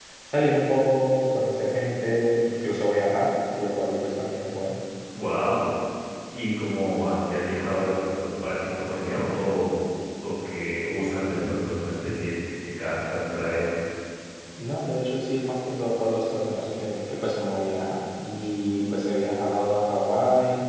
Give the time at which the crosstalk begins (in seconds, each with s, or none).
none